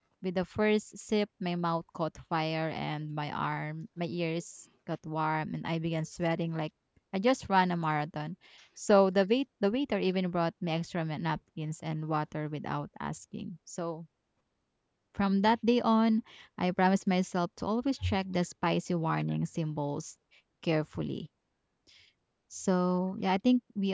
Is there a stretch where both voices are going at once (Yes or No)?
No